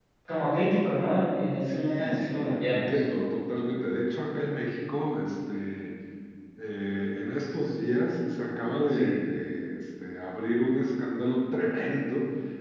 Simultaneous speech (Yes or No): Yes